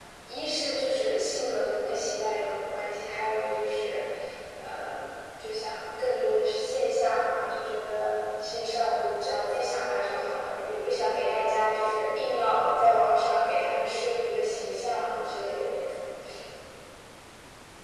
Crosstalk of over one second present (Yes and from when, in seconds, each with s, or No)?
No